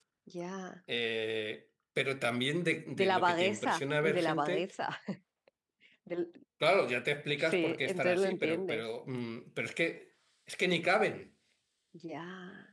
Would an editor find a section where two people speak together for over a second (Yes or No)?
Yes